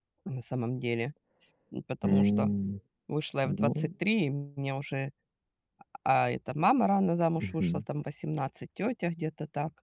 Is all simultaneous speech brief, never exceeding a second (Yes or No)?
Yes